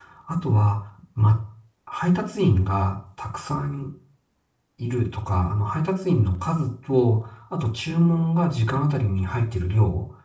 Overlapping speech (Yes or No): No